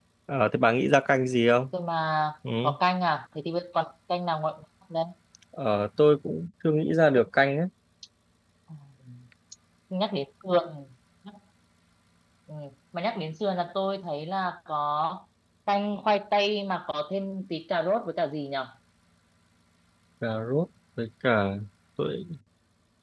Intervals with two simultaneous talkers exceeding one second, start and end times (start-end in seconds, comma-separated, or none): none